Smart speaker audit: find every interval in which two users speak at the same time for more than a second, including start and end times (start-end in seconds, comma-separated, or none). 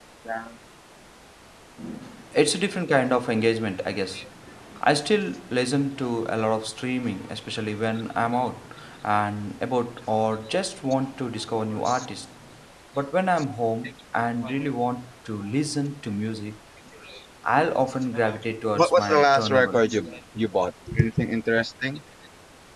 18.8-20.2